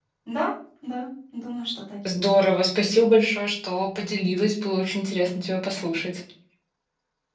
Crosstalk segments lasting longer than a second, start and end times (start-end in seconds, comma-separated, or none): none